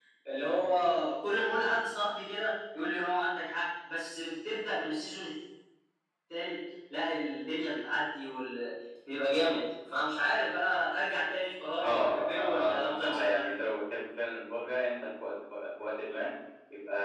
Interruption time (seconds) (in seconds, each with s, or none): 11.8 s